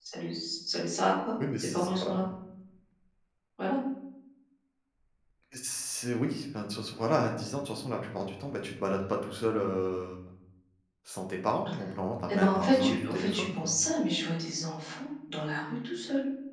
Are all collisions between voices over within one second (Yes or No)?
No